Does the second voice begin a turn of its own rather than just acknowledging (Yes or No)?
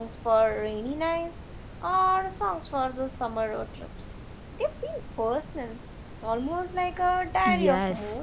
Yes